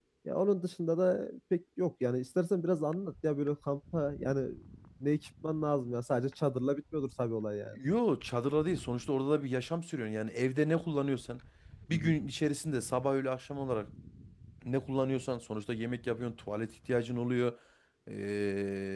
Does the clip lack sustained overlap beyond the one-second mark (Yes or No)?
Yes